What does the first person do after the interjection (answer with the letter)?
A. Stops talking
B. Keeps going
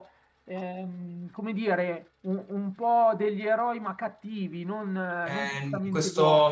A